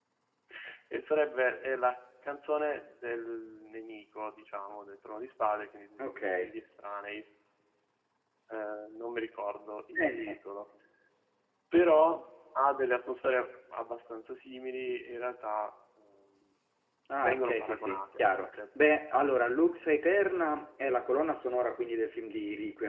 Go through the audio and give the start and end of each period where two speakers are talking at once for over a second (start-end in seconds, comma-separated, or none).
17.2-18.5